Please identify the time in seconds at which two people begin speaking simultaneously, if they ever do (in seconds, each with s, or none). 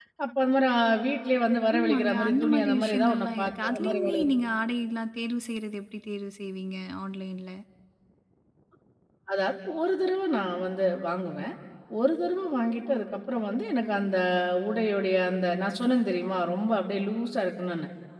1.8 s